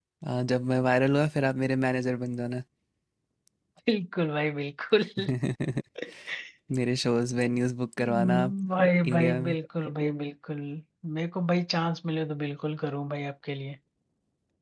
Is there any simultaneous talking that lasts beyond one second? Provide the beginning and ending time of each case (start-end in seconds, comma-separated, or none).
none